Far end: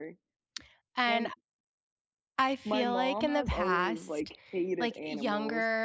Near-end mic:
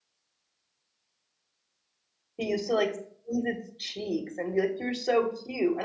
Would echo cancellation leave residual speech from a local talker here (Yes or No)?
Yes